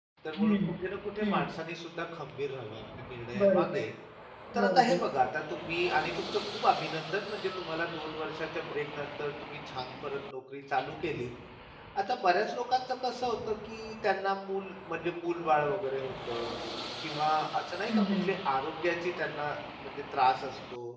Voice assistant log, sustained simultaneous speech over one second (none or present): none